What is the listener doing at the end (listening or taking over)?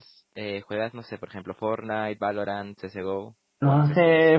taking over